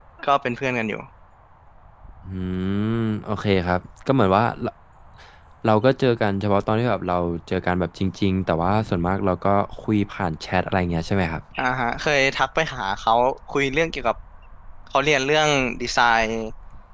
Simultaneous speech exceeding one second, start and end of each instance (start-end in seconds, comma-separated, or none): none